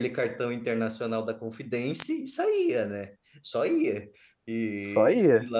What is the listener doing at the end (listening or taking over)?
listening